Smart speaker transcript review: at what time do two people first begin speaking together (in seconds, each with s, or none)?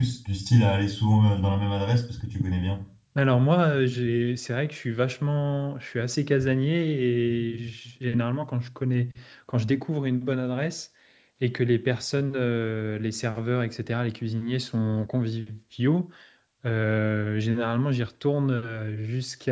none